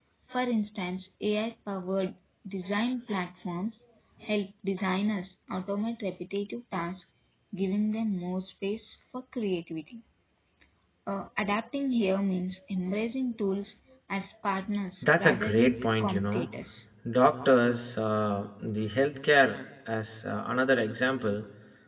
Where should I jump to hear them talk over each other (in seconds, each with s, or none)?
15.0 s